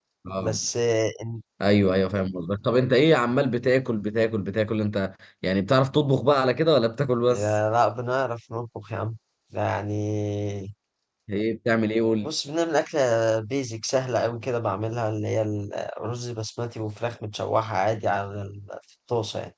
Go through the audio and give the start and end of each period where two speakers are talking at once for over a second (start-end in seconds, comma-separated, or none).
none